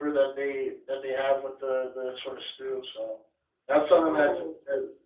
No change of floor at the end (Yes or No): Yes